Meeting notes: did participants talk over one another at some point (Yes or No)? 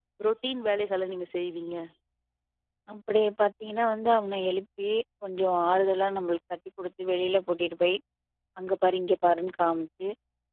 No